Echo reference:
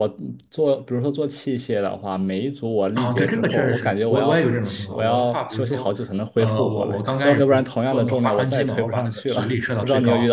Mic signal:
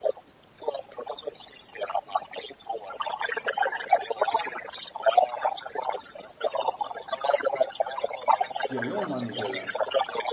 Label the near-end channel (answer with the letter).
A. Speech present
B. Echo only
A